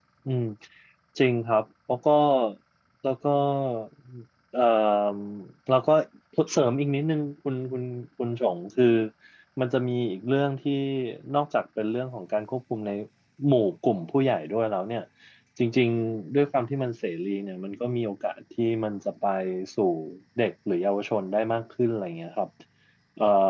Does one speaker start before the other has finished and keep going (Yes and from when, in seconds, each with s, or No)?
No